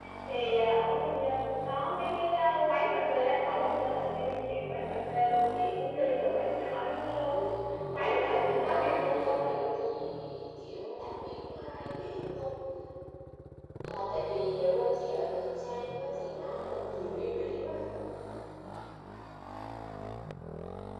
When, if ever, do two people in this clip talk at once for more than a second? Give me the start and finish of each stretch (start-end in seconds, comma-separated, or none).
8.5-9.7